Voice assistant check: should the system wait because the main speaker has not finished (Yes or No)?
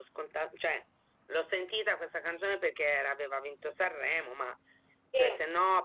Yes